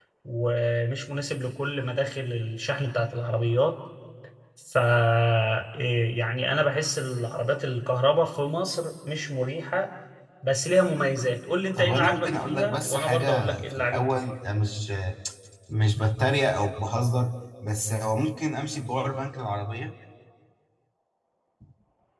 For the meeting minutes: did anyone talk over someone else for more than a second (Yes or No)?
Yes